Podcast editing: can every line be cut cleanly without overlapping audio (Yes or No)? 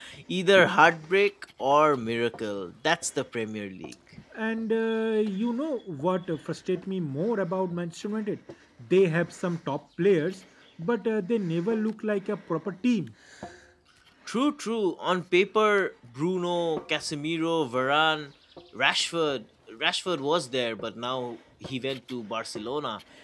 Yes